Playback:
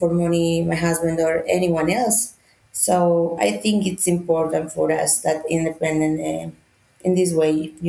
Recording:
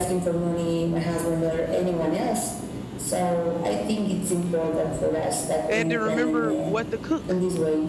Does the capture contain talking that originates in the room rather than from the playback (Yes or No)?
Yes